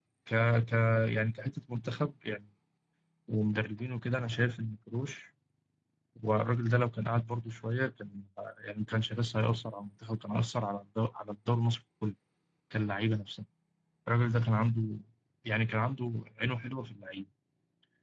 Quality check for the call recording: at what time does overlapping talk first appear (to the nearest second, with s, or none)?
none